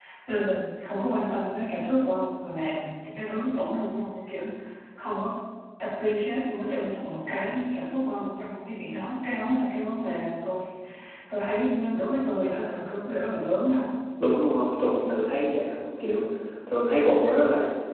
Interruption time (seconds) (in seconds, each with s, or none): none